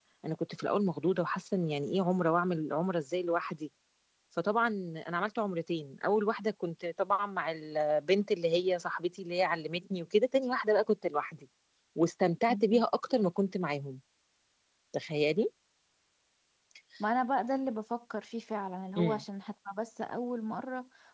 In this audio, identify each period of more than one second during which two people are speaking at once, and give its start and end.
none

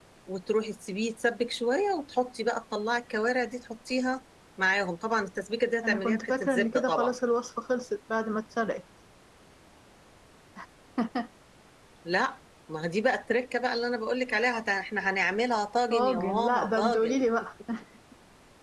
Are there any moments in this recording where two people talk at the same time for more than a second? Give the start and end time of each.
5.8-7.2, 15.9-17.2

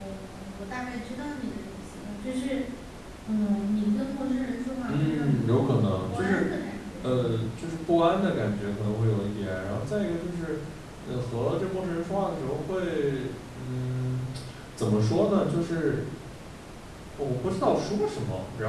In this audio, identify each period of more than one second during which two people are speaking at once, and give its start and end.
4.9-6.4

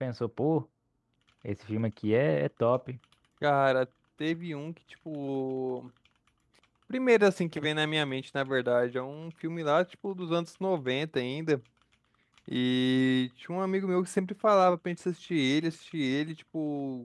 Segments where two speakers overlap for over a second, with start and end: none

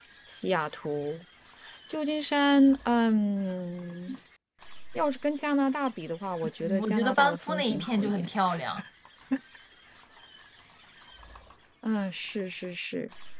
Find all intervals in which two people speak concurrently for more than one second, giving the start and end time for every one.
6.6-8.3

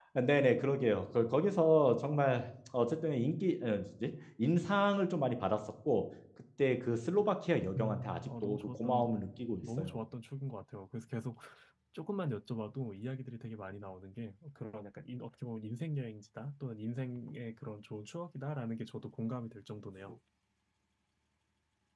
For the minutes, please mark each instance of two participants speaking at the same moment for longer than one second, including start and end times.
7.8-9.1

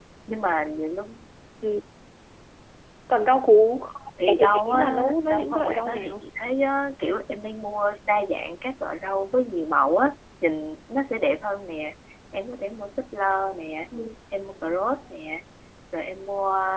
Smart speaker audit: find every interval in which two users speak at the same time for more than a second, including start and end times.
4.4-6.2

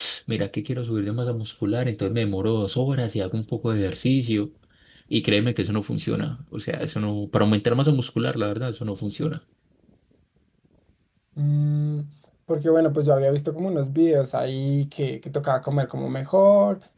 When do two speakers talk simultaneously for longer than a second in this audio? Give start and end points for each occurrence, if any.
none

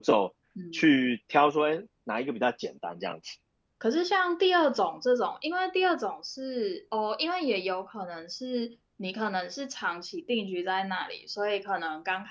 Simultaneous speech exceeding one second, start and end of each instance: none

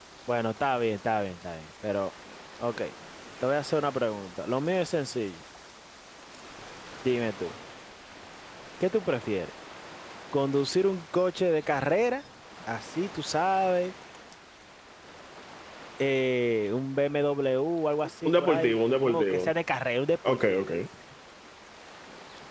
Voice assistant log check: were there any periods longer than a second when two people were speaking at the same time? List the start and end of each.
18.3-19.5

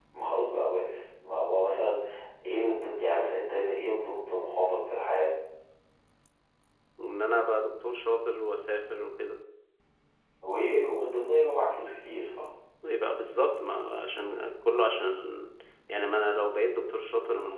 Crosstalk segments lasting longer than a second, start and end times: none

